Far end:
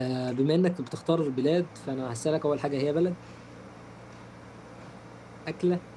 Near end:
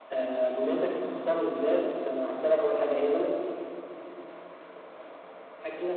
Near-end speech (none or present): none